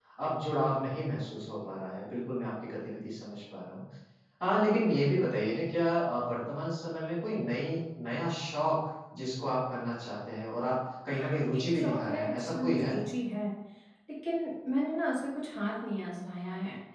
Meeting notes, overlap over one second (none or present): present